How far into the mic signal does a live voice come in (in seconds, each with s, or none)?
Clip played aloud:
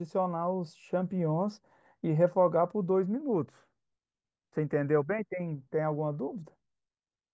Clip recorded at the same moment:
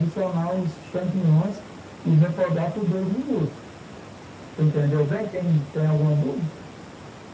none